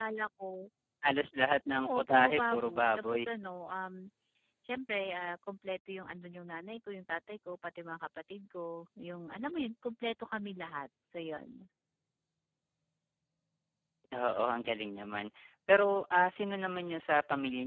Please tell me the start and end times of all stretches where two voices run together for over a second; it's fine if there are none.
1.8-3.2

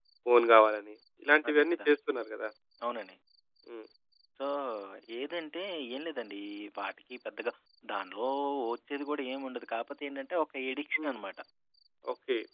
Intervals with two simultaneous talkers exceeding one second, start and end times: none

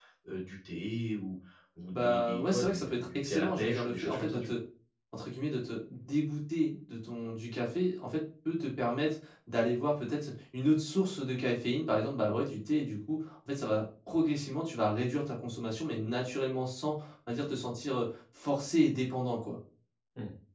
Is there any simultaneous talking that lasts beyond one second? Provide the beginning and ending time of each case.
1.9-4.5

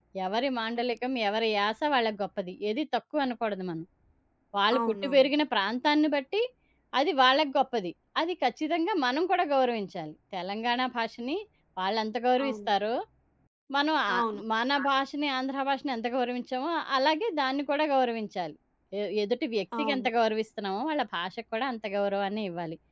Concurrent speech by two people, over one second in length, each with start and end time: none

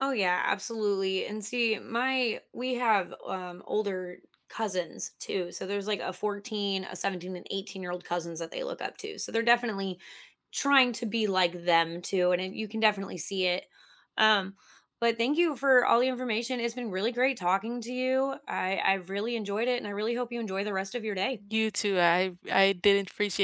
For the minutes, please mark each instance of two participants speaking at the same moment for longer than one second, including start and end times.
none

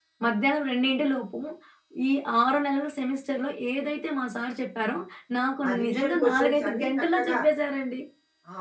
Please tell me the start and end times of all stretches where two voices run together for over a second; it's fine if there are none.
5.7-7.4

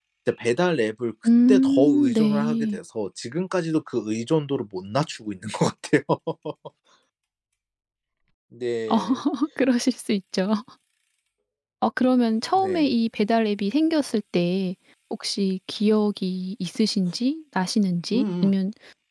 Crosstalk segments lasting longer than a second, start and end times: 1.5-2.8

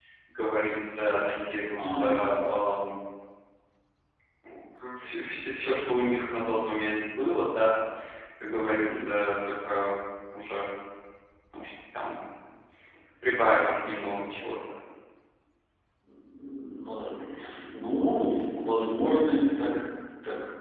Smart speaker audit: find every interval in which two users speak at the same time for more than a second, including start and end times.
none

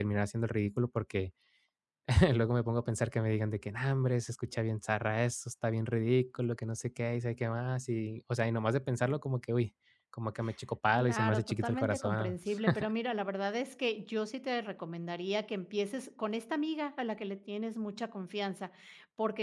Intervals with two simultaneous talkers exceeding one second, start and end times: 10.9-12.4

